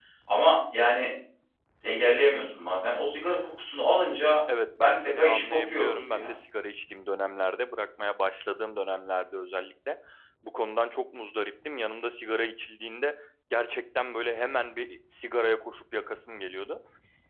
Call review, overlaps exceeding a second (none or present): present